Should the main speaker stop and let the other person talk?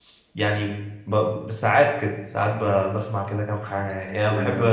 No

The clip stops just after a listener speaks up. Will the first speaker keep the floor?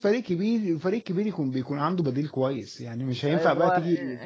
No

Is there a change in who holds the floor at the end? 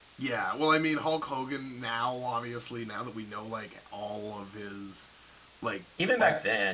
Yes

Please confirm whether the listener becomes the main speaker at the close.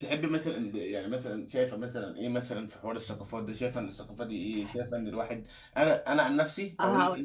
No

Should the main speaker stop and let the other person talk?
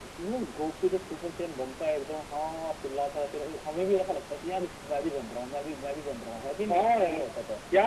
Yes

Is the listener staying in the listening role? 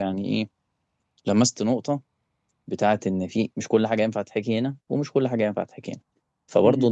Yes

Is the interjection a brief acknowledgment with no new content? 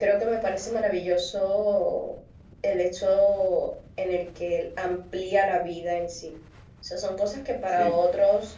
Yes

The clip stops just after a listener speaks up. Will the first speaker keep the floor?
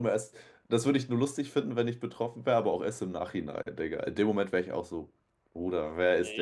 No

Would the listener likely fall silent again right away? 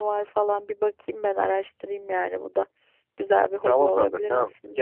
No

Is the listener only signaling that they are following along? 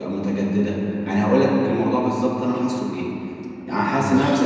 Yes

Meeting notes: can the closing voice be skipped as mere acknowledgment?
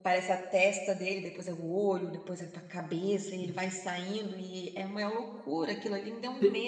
No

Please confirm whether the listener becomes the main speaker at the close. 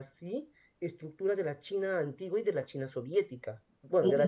Yes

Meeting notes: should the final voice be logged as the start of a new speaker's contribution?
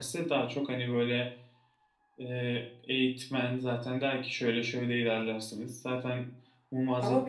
Yes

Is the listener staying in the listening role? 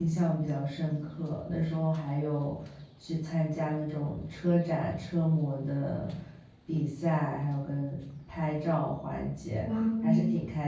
Yes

